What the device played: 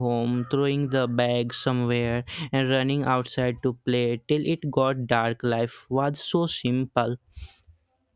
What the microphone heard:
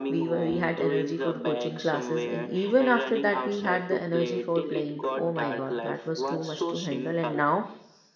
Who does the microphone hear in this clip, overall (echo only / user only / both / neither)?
both